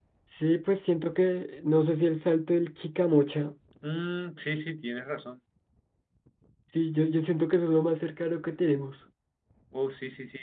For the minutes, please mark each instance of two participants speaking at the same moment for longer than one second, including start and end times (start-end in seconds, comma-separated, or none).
none